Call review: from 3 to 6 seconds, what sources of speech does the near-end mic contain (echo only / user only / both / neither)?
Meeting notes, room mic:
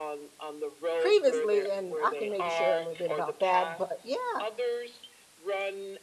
both